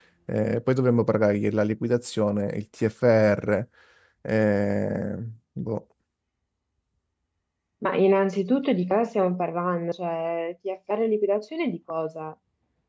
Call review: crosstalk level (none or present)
none